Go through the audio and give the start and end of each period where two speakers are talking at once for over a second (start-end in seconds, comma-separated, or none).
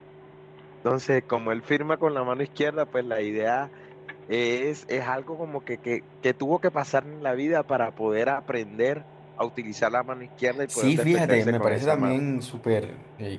10.8-12.2